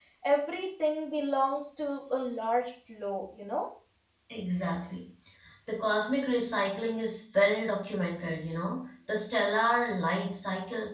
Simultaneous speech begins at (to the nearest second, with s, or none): none